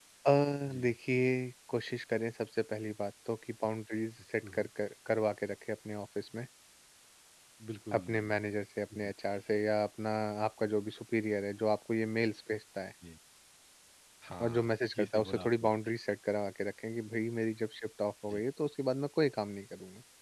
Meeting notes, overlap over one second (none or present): present